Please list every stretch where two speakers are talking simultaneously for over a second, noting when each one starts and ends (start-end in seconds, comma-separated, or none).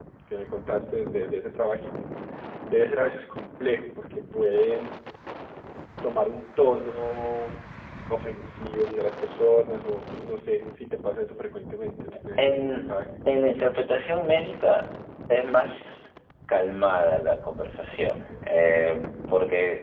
none